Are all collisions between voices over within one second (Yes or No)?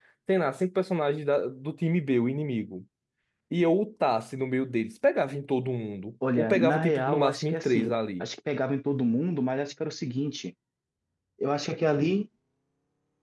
No